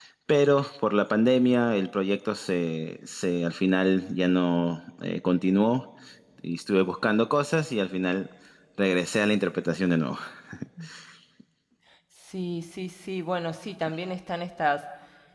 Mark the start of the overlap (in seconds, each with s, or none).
none